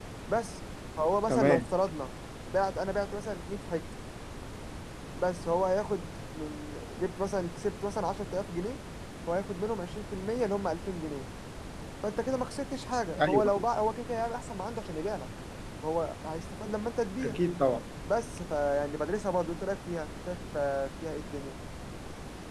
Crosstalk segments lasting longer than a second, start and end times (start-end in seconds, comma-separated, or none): none